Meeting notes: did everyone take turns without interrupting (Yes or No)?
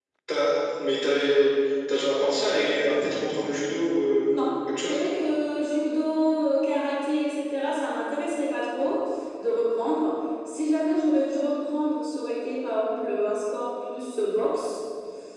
Yes